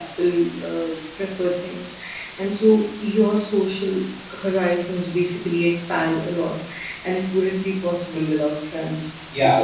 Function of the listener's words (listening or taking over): taking over